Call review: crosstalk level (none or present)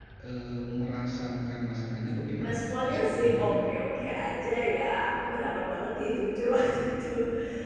present